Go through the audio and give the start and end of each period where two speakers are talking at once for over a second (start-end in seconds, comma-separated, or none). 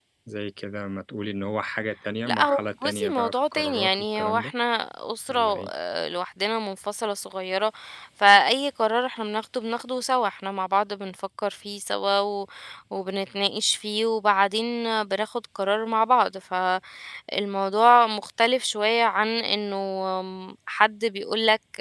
2.3-4.5